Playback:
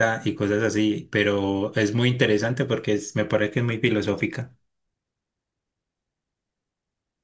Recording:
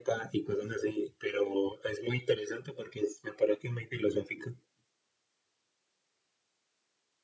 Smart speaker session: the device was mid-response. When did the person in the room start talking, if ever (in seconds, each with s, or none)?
none